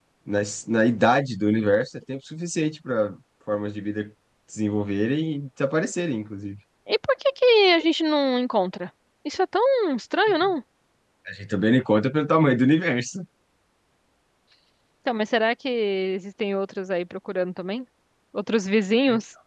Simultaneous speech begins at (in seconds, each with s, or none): none